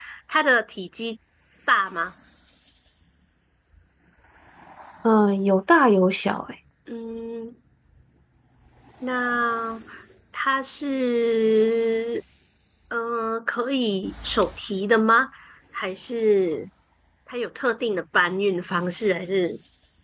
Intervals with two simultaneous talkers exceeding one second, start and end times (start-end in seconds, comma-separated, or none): none